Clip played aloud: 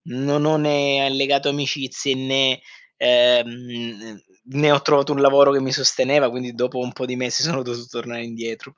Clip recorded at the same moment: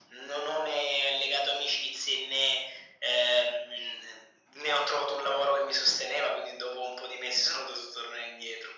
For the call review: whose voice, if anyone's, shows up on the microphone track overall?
echo only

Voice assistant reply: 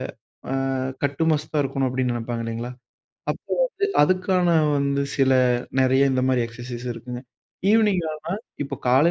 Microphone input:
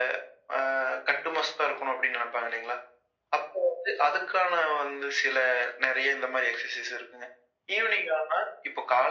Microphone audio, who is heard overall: echo only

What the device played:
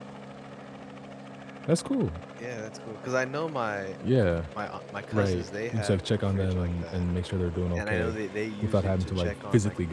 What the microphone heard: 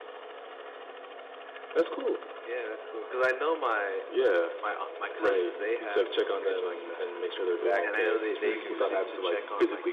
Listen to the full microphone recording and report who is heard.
both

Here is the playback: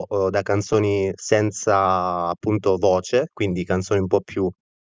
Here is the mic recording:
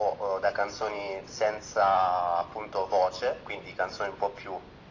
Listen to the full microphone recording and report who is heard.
echo only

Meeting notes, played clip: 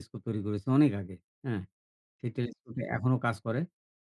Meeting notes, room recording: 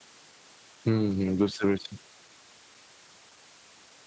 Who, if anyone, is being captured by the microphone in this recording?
user only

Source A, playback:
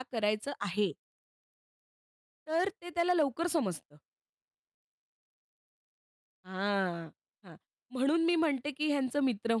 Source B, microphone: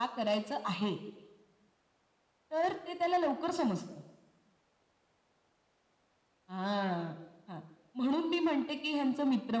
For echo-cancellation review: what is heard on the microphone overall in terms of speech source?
echo only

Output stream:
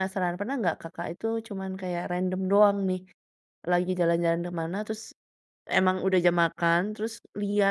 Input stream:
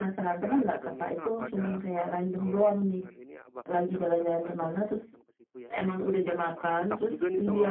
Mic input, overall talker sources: both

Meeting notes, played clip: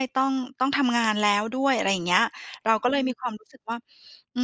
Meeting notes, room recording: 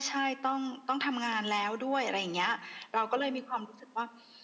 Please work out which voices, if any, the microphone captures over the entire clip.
echo only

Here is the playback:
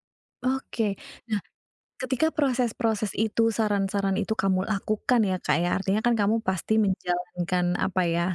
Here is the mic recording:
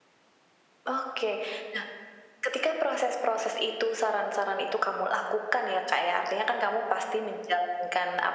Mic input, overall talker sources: echo only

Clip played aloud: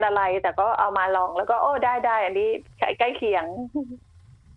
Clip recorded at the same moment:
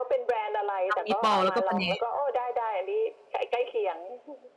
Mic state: both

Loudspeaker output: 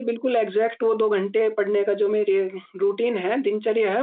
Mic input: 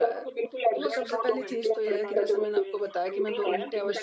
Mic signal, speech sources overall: both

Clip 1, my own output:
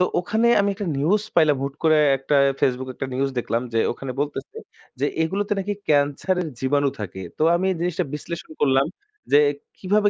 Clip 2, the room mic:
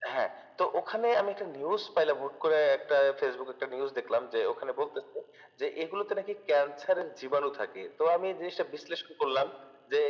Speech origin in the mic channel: echo only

